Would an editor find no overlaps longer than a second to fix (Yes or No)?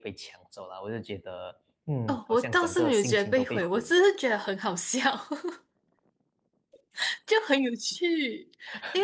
No